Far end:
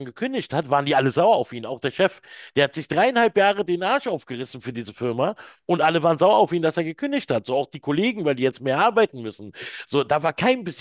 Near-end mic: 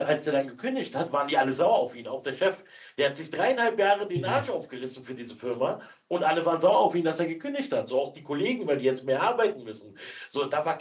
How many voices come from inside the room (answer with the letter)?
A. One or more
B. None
A